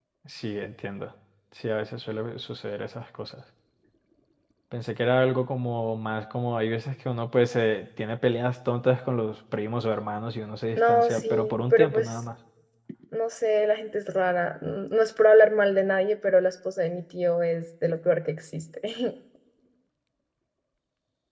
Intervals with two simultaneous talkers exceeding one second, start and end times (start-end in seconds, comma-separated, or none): 10.8-12.1